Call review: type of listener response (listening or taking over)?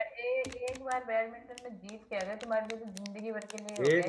taking over